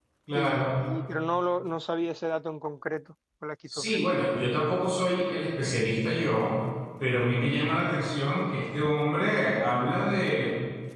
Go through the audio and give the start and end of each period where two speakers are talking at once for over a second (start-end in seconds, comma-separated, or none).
none